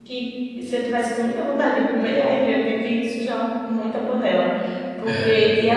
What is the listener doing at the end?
listening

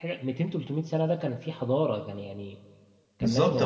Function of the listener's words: taking over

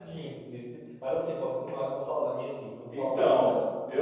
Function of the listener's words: taking over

